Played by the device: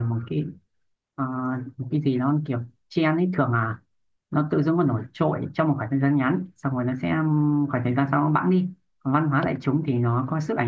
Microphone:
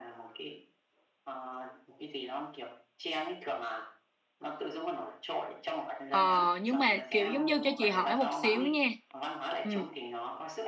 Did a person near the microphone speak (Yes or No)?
Yes